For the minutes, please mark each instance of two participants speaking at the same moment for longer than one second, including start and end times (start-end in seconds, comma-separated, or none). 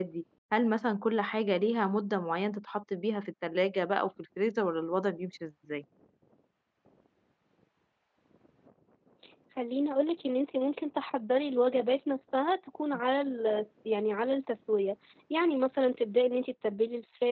none